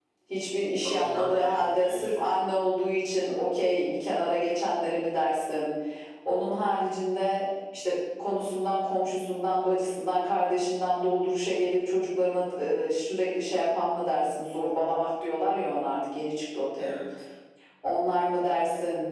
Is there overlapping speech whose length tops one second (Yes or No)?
Yes